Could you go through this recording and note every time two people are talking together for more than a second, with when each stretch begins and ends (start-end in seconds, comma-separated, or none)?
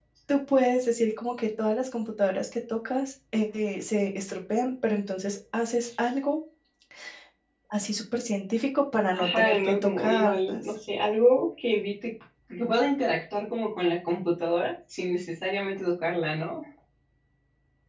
9.1-10.6